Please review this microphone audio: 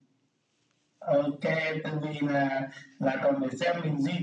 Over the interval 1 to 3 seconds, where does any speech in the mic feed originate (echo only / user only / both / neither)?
echo only